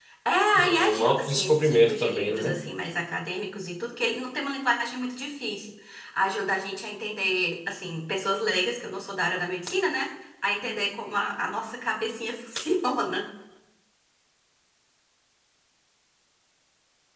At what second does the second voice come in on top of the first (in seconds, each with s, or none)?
0.6 s